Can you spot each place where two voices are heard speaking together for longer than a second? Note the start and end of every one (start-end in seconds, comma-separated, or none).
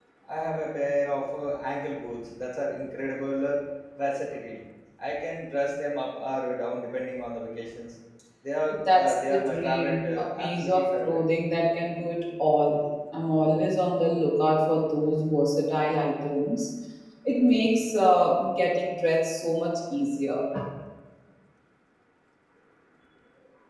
8.9-11.2